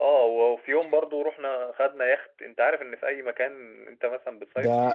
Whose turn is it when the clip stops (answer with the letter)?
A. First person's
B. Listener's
B